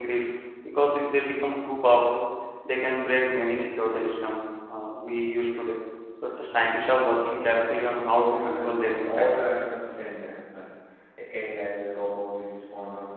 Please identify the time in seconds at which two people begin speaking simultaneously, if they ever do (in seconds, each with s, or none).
7.0 s